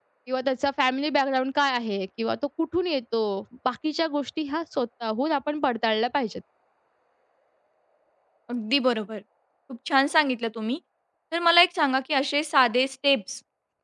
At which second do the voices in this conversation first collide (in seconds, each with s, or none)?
none